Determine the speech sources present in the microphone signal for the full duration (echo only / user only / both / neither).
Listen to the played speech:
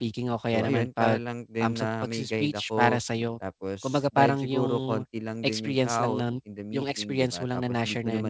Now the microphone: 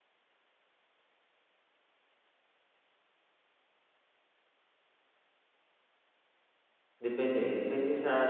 user only